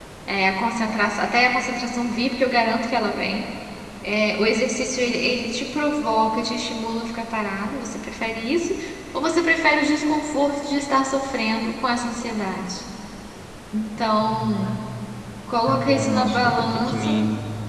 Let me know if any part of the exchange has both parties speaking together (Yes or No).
Yes